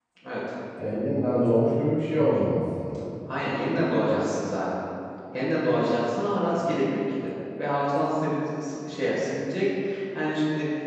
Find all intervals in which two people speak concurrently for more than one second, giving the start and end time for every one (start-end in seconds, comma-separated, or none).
none